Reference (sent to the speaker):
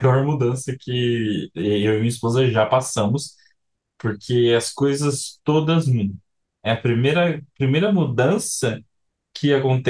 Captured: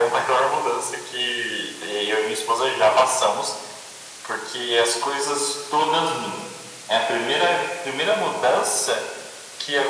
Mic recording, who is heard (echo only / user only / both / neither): echo only